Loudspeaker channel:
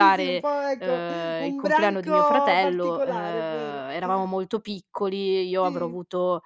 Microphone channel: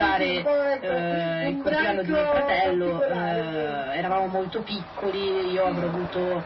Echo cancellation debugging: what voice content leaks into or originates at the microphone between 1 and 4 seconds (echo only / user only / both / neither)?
echo only